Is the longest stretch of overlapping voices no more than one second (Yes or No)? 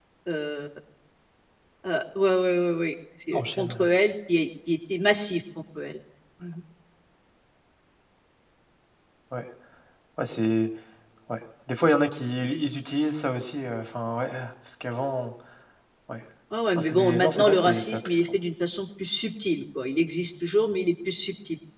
No